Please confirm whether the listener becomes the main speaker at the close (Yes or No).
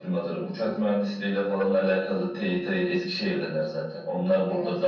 No